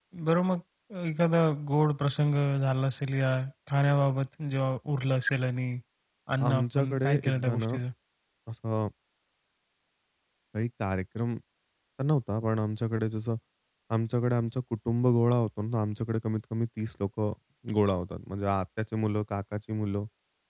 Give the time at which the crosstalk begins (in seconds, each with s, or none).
6.5 s